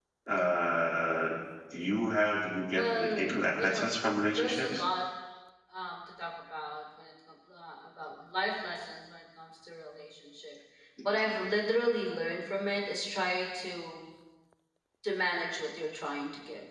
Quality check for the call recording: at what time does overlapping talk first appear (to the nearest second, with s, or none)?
3 s